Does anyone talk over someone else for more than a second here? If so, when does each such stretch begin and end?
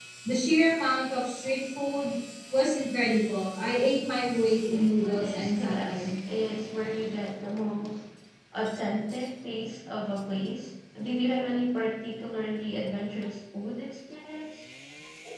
4.5-6.1

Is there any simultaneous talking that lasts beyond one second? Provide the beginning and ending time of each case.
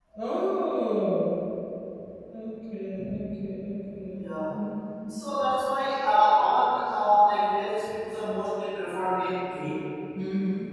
none

